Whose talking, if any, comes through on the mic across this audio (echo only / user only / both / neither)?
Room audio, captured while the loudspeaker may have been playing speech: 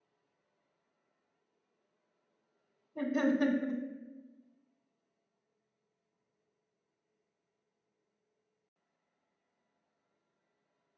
user only